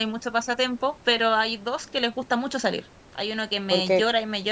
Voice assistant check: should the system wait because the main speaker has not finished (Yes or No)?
Yes